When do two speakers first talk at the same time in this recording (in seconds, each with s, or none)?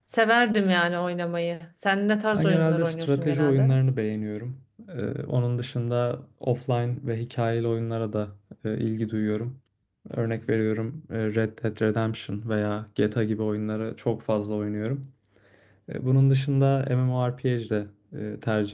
2.3 s